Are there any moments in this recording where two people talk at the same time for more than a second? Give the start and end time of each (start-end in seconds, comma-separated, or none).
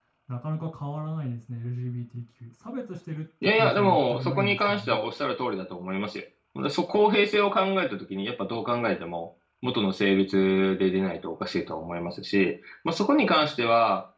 3.4-5.0